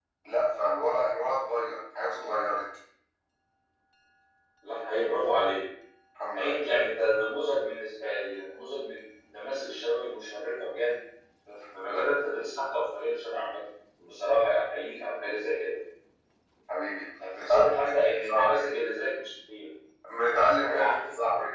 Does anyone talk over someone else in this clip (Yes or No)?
Yes